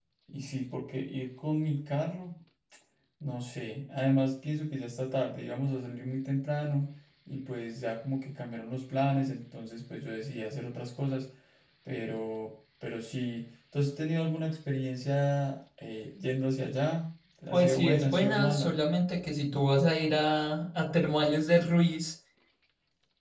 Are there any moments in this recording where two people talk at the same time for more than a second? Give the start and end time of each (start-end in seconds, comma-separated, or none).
17.5-18.8